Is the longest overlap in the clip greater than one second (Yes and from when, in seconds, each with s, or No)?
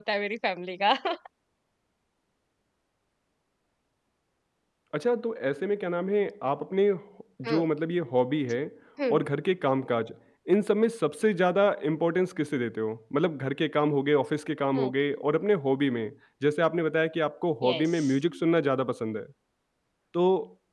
No